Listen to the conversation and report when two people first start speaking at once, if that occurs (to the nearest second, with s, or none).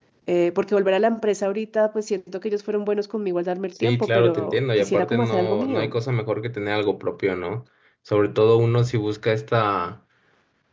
4 s